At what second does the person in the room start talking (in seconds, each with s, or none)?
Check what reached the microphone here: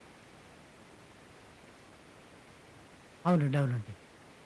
3.3 s